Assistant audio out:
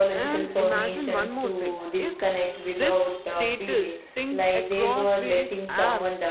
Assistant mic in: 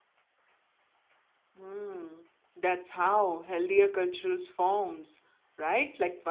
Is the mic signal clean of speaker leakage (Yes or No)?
Yes